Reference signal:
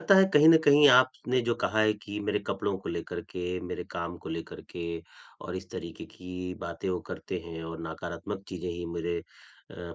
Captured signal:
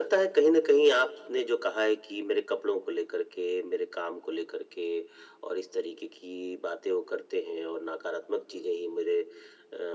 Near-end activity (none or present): none